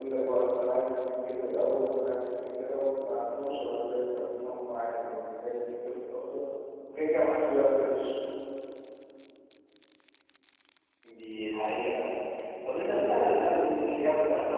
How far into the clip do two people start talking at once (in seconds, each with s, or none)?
none